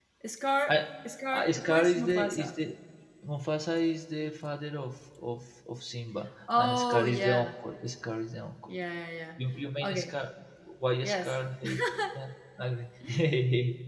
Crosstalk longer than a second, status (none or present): present